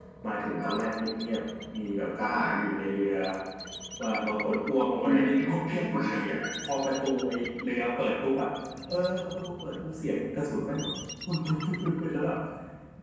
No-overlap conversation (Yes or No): No